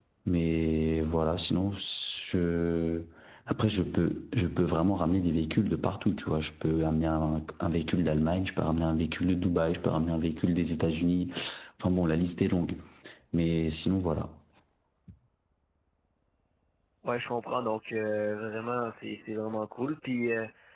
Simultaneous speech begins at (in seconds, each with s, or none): none